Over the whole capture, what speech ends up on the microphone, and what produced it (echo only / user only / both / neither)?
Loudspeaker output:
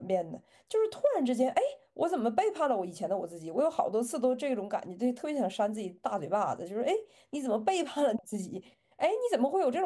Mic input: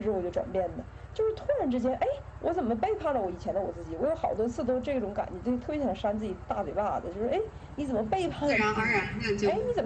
both